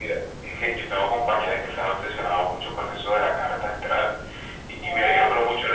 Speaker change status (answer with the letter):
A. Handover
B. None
B